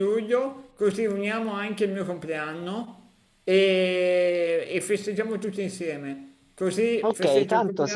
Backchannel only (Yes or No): No